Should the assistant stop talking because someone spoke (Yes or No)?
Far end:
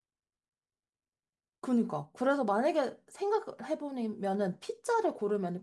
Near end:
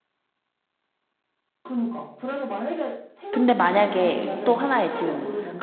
Yes